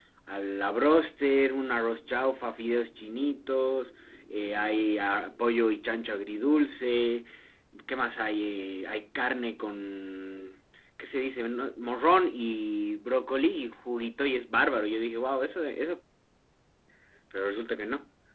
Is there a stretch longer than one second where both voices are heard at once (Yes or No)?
No